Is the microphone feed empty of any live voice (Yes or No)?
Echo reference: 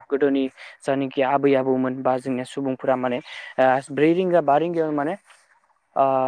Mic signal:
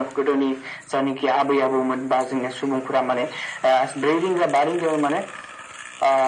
Yes